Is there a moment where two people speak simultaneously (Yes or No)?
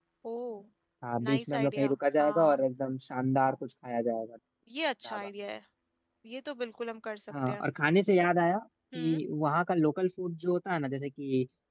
Yes